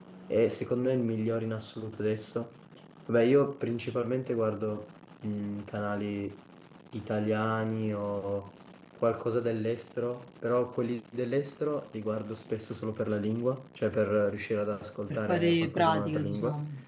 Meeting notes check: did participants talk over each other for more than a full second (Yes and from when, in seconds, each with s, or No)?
Yes, from 15.1 s